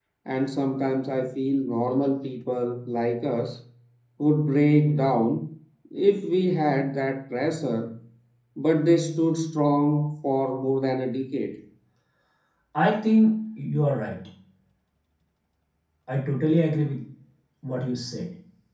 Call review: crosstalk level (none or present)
none